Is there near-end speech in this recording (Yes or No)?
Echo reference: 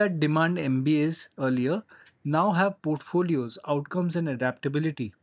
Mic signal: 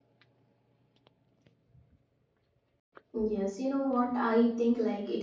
Yes